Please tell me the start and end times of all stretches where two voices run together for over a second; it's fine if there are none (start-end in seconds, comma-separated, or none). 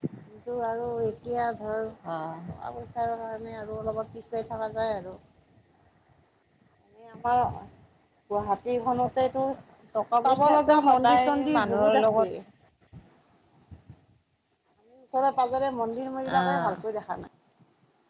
10.2-12.3